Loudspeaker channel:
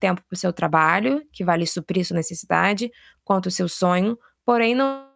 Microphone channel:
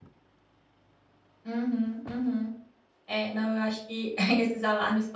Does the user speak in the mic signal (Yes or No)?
Yes